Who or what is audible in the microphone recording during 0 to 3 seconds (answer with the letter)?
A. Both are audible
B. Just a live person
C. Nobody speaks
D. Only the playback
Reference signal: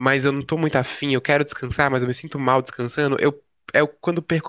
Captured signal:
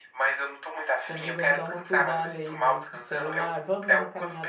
A